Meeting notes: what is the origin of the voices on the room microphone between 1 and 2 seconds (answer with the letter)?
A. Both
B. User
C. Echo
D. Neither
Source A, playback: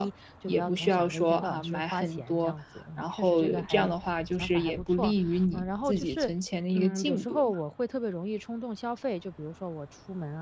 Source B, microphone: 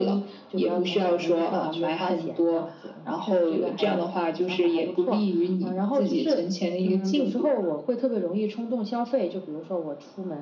C